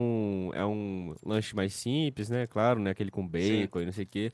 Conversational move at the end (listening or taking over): listening